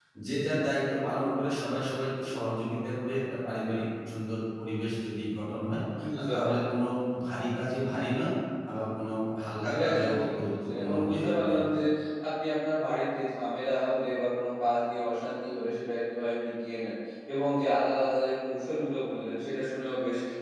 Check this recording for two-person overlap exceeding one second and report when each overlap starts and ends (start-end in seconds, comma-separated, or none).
9.7-11.6